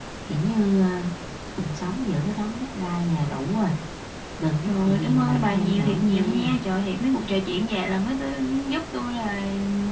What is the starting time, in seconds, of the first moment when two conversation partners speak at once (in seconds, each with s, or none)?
4.6 s